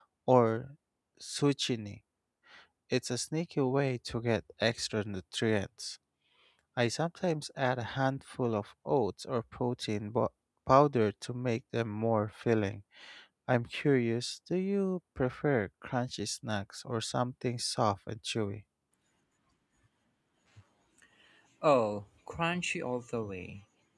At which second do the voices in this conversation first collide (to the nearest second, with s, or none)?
none